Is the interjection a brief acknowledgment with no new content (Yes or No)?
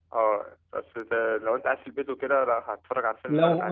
No